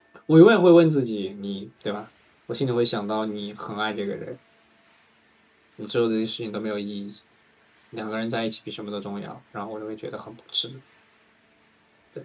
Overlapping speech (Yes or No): No